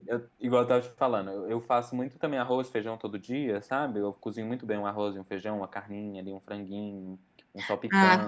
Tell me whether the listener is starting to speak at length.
Yes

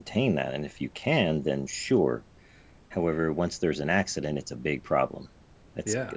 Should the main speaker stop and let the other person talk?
No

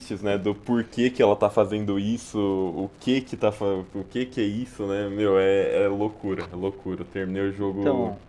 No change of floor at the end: Yes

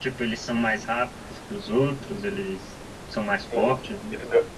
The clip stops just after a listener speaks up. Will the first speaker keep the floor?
No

